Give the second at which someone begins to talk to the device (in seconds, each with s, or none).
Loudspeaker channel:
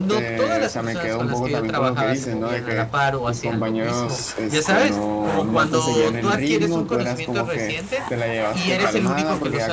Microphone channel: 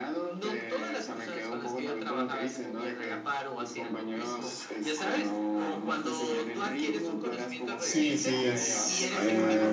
7.8 s